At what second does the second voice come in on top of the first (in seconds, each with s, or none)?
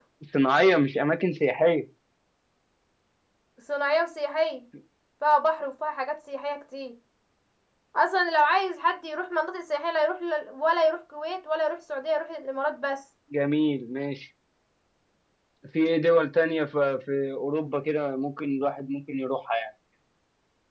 none